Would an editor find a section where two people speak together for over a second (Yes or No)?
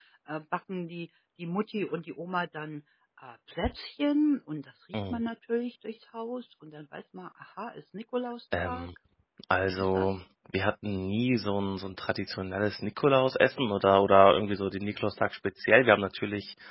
No